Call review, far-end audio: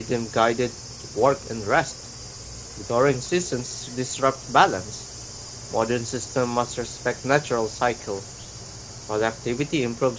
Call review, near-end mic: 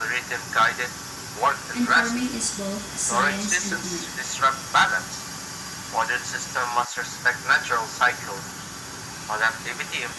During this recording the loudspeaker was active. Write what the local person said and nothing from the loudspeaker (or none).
and farming is both science and art.